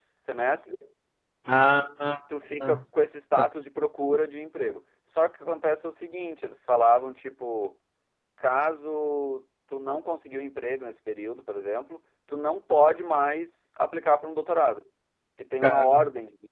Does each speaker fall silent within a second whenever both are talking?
Yes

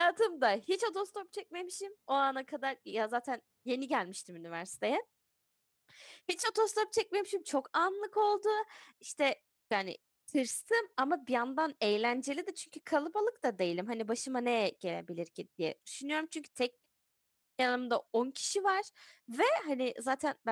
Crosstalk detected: No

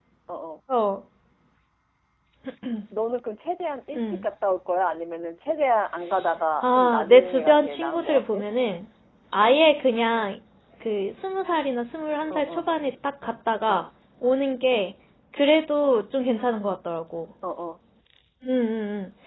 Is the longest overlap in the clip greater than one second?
Yes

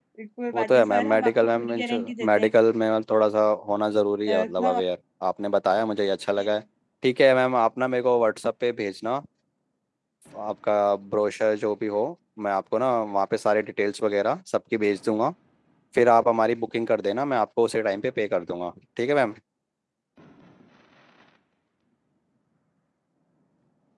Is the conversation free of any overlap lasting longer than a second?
No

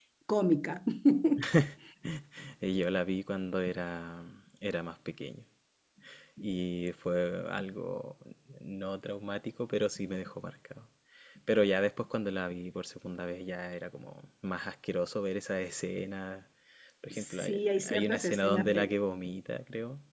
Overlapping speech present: Yes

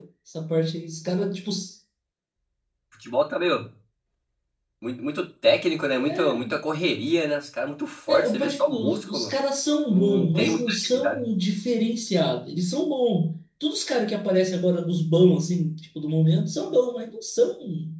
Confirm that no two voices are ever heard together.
No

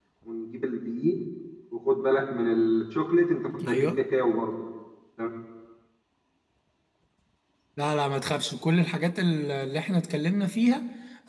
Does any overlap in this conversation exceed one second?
No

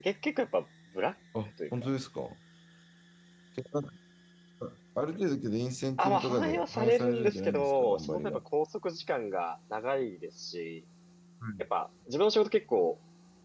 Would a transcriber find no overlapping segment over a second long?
No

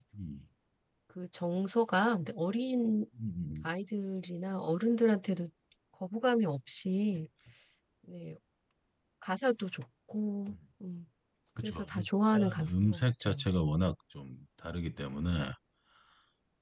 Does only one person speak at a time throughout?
No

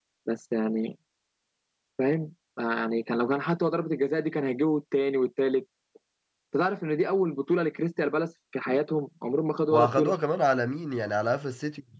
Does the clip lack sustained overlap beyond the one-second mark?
Yes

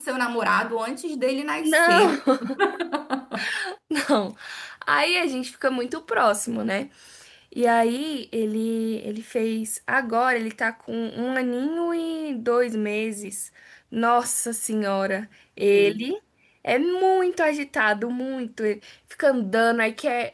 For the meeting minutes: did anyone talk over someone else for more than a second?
No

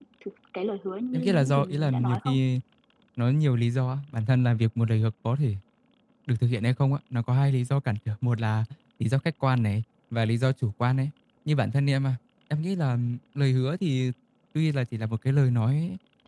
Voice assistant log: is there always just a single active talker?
No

